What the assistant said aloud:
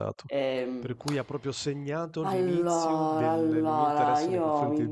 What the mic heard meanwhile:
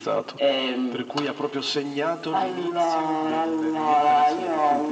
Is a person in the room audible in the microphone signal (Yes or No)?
No